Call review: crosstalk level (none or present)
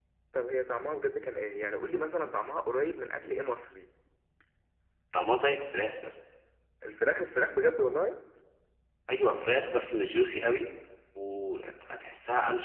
none